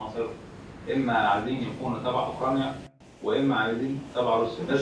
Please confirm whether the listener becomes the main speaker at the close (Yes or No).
Yes